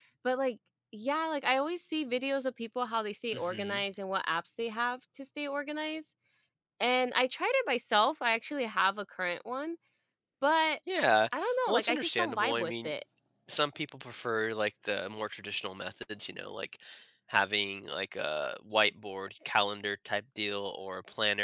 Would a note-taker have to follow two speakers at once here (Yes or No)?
Yes